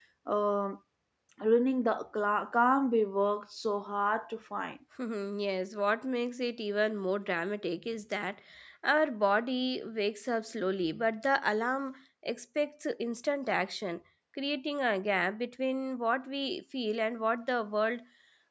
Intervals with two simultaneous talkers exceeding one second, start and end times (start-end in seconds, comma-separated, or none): none